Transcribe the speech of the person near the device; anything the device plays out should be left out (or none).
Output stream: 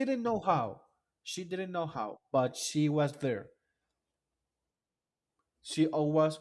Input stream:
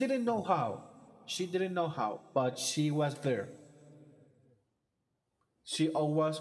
none